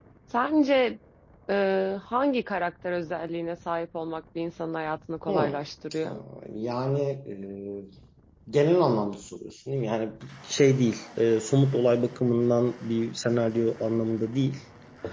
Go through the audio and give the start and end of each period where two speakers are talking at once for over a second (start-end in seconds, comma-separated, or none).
none